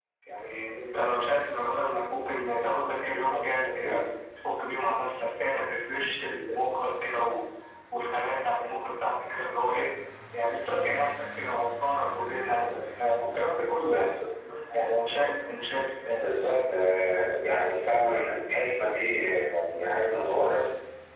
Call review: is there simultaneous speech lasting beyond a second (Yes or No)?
No